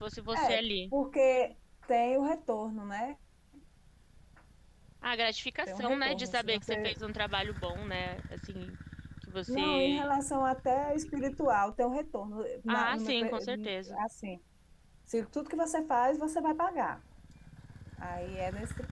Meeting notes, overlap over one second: present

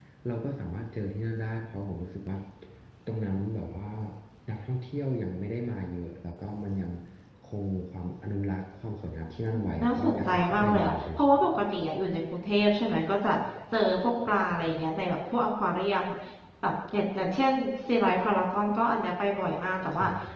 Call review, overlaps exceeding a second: present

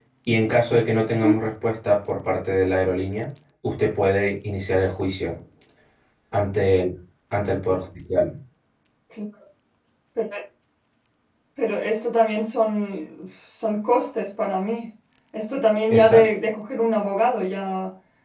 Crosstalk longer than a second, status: none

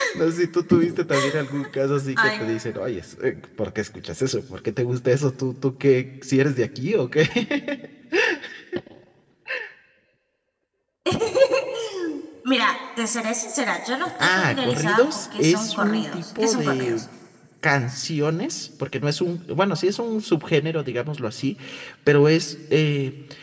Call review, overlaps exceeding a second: present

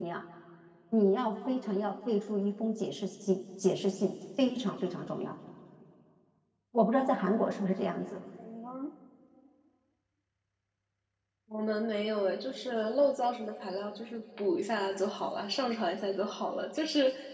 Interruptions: none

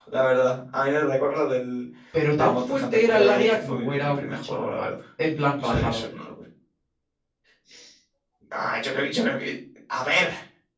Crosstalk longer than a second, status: present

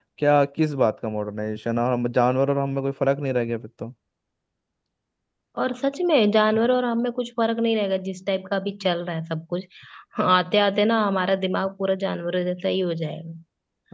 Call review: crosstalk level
none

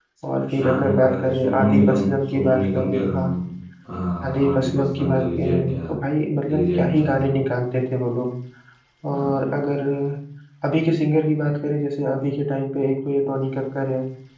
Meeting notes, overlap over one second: present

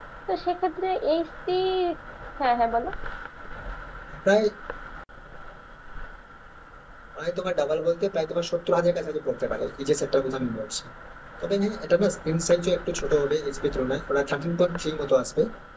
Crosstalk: none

